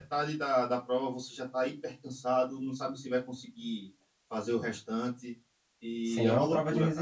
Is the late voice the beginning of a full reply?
Yes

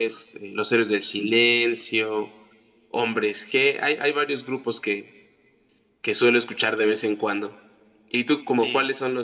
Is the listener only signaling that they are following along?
Yes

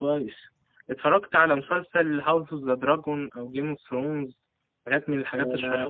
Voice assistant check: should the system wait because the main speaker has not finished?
No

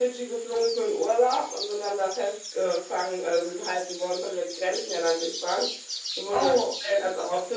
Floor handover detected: No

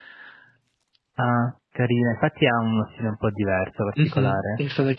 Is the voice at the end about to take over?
Yes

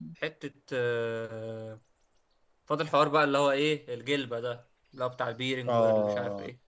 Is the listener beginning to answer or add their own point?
Yes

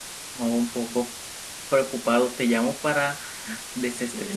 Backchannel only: Yes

